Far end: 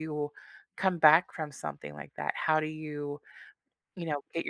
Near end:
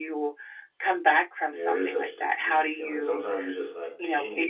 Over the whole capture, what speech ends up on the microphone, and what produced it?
both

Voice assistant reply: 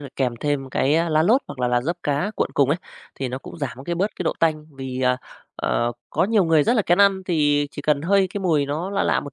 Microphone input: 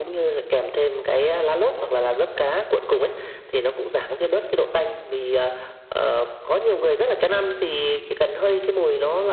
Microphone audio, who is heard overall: echo only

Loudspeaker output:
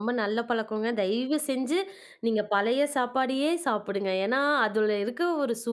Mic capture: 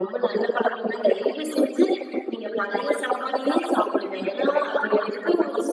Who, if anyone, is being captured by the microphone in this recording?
echo only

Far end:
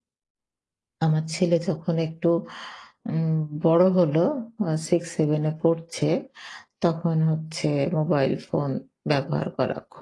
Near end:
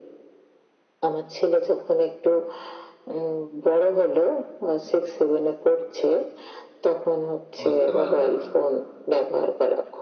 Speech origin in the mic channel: both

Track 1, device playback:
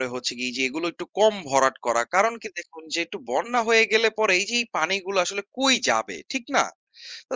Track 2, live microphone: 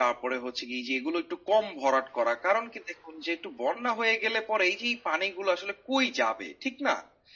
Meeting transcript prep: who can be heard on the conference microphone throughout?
echo only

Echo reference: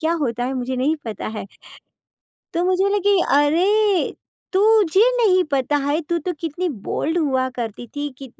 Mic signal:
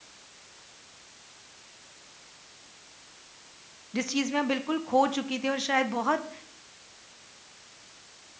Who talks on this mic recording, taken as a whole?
user only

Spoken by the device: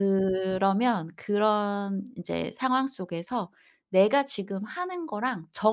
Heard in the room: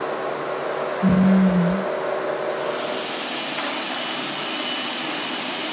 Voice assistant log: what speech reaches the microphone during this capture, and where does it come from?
user only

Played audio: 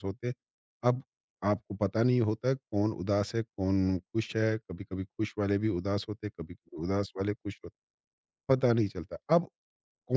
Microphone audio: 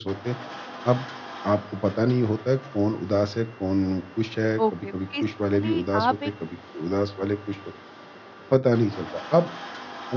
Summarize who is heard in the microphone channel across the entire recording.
both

